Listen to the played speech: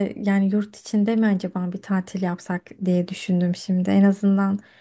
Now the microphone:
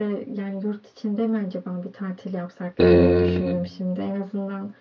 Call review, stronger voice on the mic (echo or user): user